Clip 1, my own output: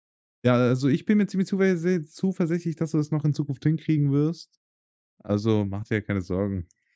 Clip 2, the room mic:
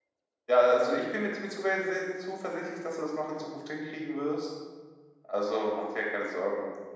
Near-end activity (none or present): none